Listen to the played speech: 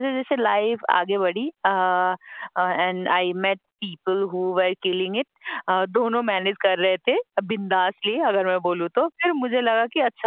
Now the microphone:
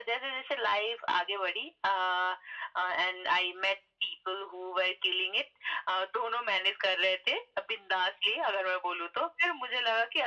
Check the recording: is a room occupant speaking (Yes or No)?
No